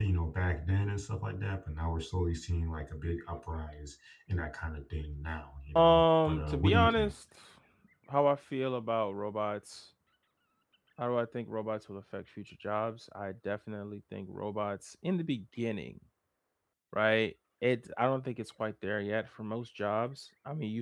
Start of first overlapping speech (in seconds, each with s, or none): 5.8 s